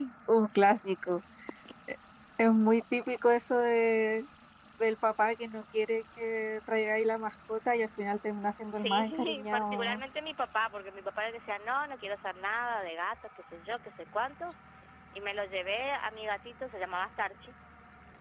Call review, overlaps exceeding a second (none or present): present